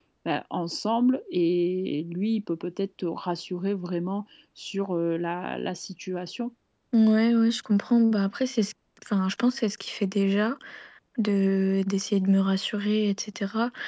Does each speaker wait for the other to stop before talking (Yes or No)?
Yes